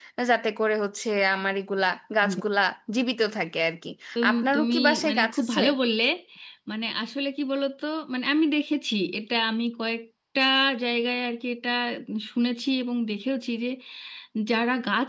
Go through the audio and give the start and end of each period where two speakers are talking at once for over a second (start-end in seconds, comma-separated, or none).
4.3-5.6